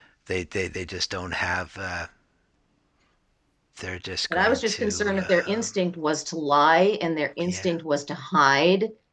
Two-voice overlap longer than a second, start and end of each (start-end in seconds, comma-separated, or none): 4.3-5.7